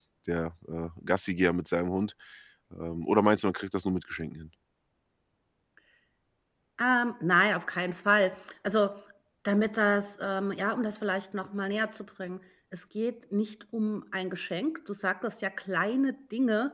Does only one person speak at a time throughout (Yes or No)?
Yes